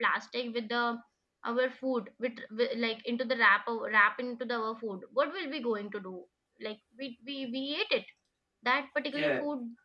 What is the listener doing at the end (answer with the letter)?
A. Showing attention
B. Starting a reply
A